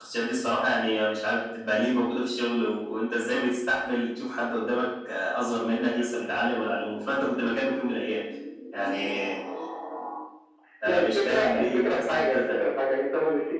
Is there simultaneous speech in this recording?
Yes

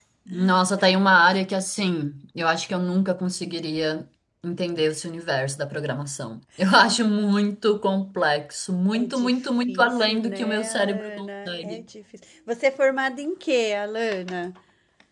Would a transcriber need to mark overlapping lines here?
Yes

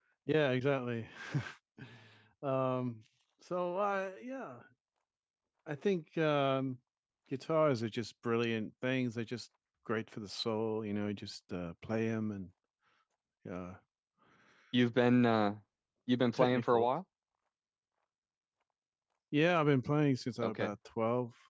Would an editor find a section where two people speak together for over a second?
No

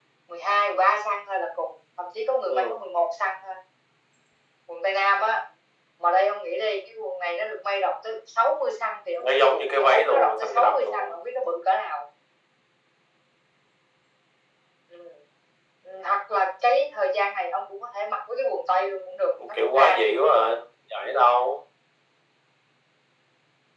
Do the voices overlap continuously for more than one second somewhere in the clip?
Yes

